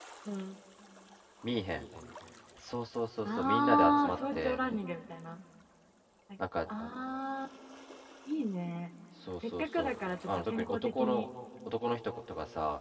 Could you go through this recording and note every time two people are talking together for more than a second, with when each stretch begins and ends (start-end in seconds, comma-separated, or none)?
3.2-4.6, 9.5-11.3